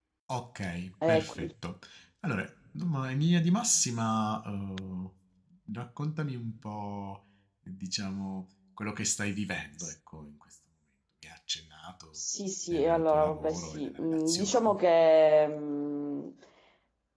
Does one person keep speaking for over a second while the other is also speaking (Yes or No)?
Yes